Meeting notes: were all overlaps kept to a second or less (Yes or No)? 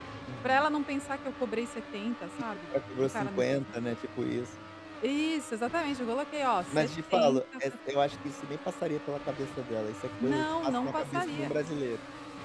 No